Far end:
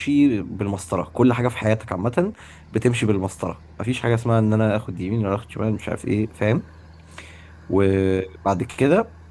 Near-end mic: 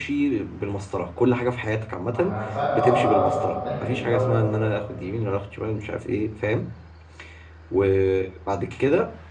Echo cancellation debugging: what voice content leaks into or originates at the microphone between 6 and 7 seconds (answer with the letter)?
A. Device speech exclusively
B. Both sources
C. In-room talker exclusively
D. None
A